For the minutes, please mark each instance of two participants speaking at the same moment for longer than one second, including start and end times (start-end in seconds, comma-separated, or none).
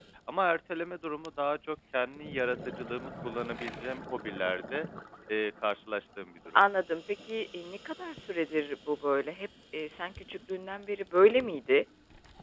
none